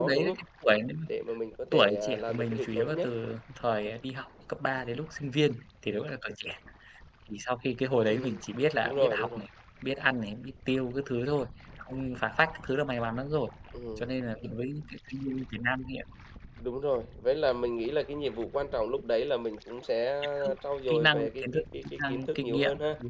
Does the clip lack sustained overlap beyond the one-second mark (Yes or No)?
No